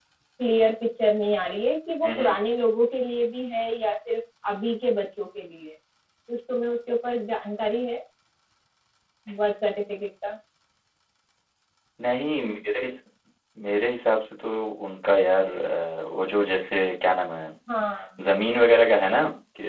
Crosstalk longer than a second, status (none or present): none